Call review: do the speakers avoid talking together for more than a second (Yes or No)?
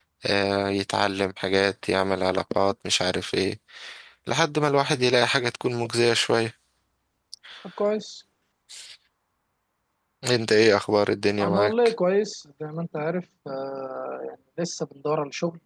Yes